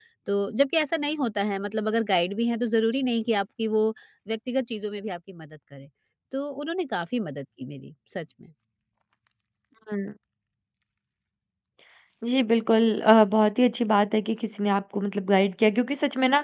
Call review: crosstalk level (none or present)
none